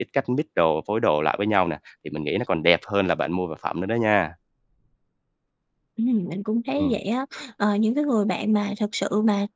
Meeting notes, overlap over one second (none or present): none